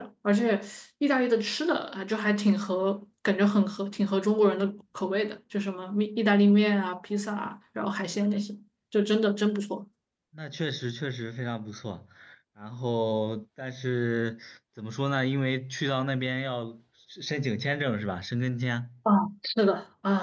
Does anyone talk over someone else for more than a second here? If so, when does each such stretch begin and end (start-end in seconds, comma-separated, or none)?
none